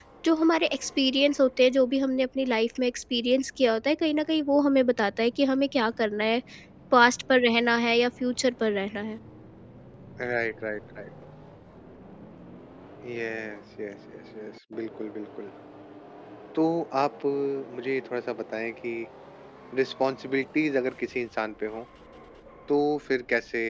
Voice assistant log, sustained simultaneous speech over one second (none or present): none